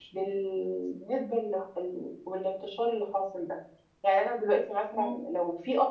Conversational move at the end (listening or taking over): listening